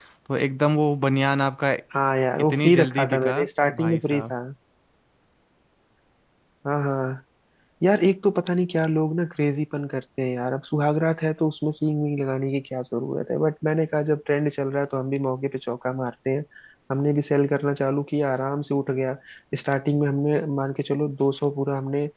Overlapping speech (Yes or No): Yes